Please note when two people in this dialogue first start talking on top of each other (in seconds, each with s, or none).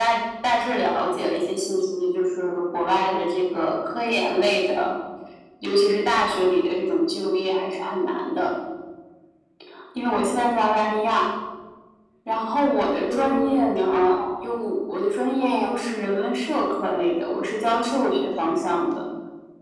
13.0 s